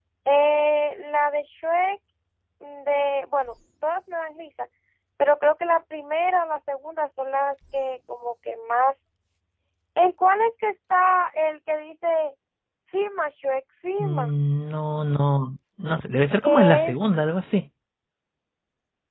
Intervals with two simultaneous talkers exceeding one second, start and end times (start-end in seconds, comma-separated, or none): none